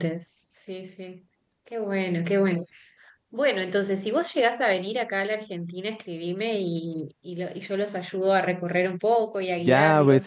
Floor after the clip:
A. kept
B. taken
B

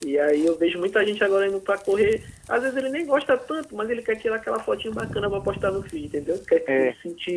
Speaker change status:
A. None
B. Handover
A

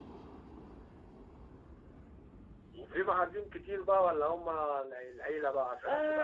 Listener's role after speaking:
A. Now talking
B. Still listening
A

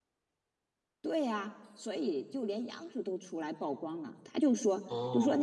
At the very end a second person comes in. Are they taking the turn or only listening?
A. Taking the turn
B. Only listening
B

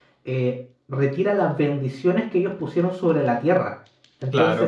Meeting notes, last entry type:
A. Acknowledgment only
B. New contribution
B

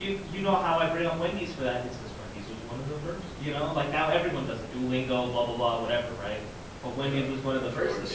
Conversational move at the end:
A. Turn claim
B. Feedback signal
A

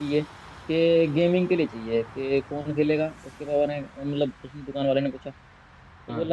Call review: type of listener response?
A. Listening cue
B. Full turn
A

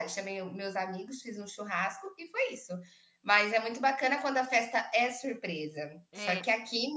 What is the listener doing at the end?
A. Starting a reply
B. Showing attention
B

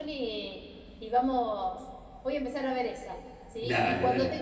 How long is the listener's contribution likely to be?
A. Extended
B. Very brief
B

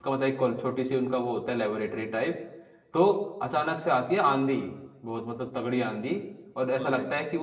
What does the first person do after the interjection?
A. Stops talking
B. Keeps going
B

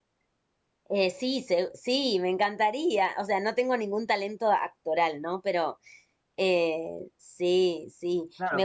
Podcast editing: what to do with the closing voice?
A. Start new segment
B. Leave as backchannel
A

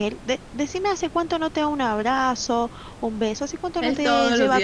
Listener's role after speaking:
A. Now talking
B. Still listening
A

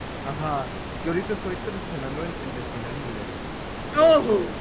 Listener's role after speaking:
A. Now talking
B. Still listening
B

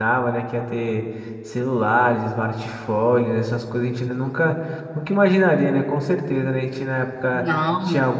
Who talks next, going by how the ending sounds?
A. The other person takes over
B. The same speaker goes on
B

